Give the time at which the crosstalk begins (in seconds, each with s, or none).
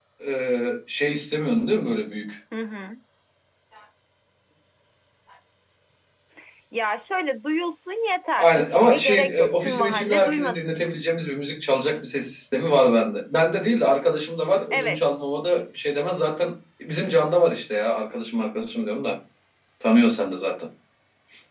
8.4 s